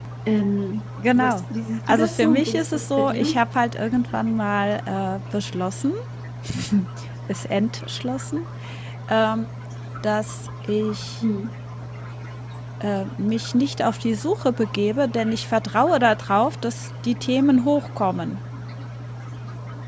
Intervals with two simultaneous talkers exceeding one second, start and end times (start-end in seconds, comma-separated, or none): 1.9-3.4